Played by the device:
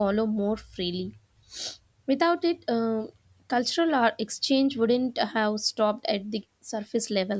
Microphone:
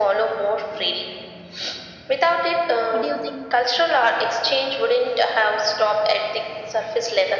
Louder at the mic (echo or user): echo